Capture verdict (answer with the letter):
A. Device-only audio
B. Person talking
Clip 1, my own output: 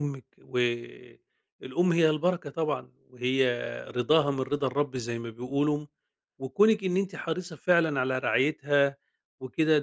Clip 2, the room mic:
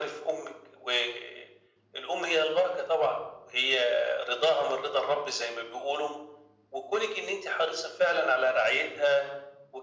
A